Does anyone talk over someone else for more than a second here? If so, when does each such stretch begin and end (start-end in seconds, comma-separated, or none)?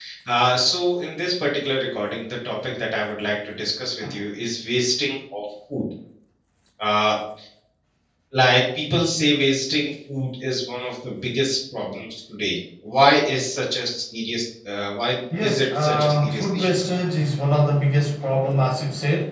15.4-16.8